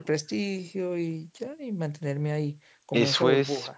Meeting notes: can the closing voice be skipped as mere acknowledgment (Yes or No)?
No